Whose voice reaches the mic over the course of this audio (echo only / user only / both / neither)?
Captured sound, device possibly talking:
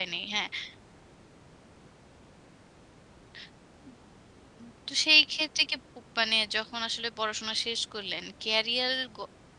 user only